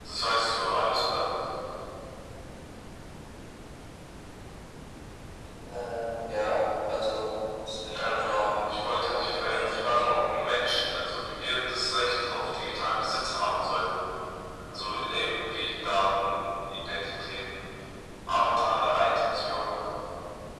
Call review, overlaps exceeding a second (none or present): present